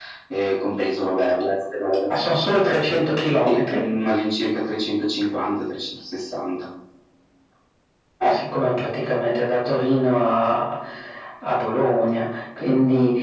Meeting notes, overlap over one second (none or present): none